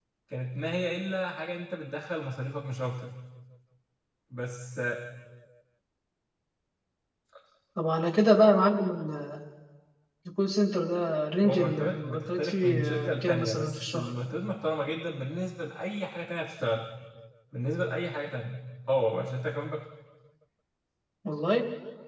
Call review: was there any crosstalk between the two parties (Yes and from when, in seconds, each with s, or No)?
Yes, from 11.4 s